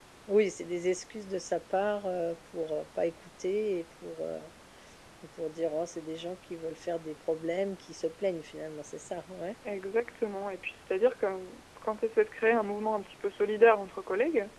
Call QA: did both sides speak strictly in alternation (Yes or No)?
Yes